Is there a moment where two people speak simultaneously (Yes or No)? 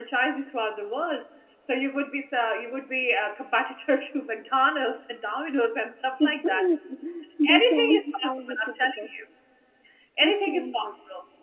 Yes